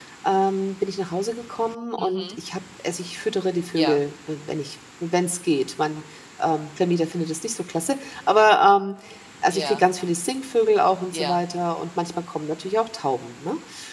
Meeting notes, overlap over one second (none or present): none